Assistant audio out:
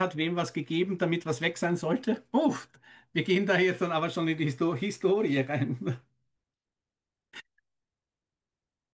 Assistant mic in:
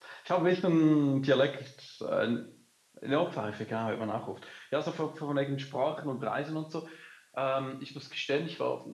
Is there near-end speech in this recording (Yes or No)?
Yes